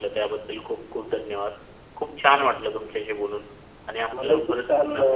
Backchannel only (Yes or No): No